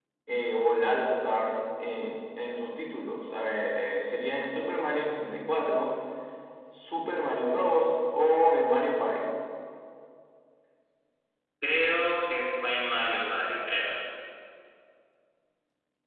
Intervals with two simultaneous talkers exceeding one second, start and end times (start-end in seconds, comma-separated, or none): none